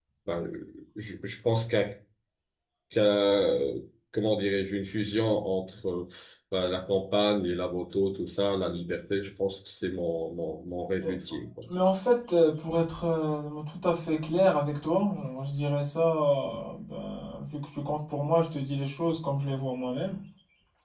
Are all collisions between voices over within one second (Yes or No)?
Yes